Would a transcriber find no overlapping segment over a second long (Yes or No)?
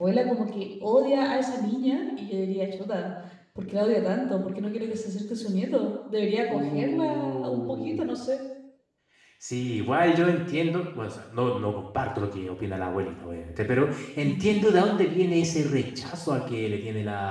No